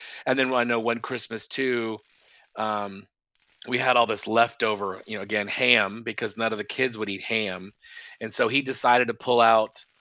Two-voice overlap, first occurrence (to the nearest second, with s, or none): none